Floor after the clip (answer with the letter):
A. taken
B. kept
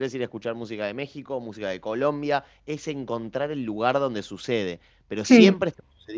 B